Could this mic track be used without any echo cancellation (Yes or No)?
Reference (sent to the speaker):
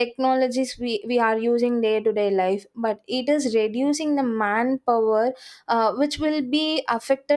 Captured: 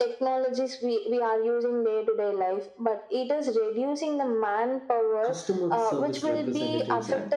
No